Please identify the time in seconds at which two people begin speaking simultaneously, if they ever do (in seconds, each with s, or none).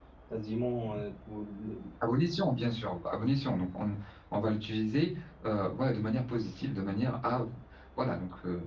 none